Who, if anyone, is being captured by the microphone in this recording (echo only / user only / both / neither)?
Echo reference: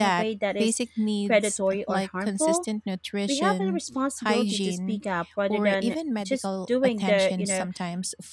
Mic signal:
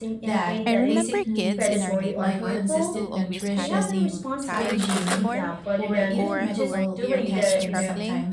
both